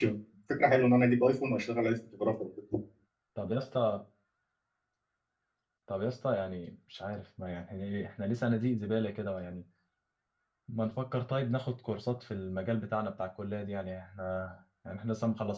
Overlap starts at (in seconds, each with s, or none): none